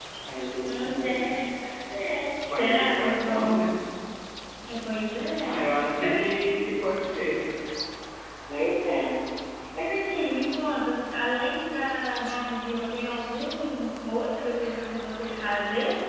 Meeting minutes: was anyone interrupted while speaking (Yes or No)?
Yes